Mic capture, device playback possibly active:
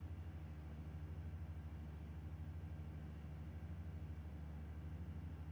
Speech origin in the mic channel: neither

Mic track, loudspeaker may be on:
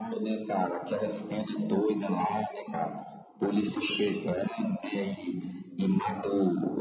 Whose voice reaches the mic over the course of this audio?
echo only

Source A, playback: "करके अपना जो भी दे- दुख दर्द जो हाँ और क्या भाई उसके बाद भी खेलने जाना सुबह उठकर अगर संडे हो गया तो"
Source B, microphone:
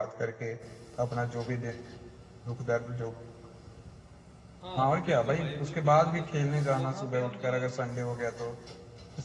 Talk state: both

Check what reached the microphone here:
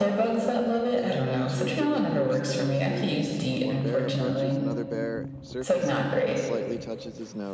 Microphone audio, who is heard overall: both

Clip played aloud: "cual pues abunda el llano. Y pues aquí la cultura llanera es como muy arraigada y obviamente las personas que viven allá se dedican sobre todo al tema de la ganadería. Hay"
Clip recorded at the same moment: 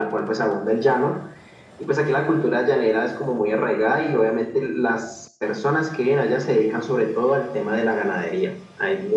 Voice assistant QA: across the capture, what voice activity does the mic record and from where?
echo only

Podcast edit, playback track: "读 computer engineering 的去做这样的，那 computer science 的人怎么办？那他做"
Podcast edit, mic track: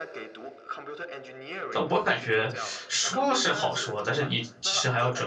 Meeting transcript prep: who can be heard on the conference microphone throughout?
both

